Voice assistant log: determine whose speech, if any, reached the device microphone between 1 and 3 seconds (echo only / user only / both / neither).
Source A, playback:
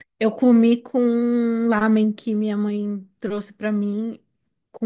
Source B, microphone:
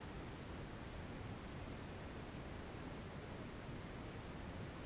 neither